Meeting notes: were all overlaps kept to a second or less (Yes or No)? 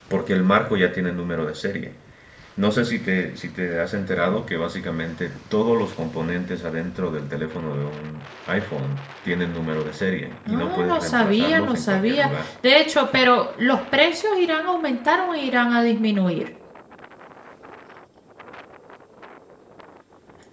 No